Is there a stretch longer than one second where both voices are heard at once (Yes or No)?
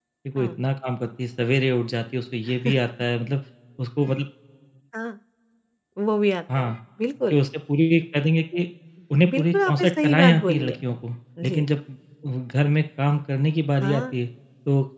Yes